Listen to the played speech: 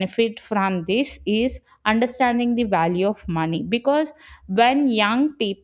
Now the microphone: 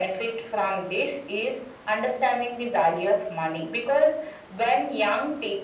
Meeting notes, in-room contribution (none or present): none